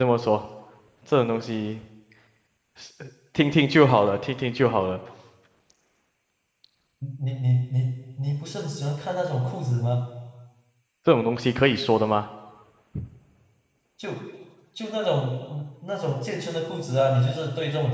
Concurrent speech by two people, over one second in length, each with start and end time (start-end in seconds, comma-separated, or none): none